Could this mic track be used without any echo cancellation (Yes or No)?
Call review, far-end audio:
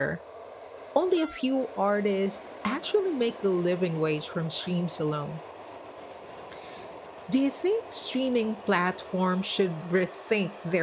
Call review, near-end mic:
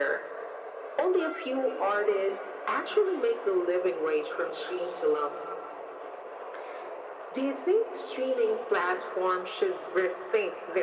No